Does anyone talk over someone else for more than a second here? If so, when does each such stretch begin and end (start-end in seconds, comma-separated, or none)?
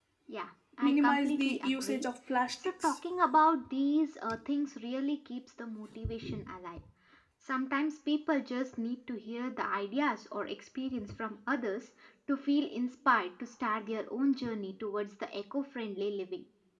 0.8-2.0